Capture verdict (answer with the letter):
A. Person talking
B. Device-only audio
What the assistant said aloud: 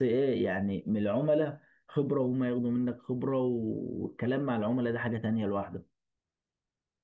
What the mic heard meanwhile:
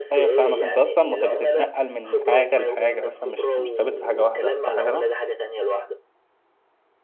A